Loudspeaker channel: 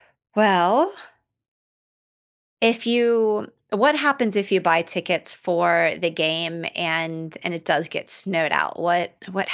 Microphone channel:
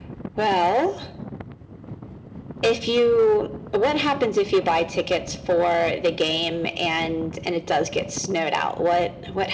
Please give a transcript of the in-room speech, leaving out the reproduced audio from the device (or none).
none